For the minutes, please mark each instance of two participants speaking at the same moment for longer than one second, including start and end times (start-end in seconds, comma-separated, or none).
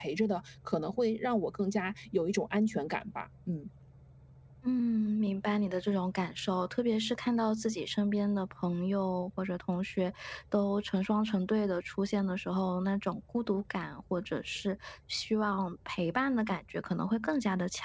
none